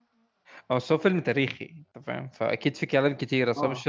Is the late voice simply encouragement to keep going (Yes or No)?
No